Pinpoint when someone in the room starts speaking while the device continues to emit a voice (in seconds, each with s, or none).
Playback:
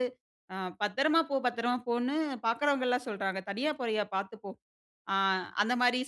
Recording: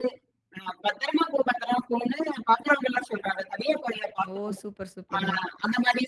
4.3 s